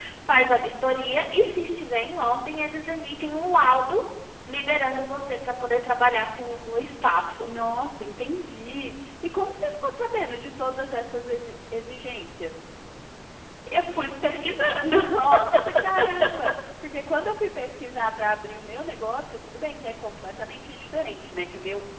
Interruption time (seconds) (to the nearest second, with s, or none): none